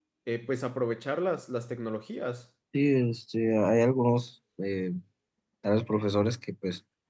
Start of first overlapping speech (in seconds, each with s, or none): none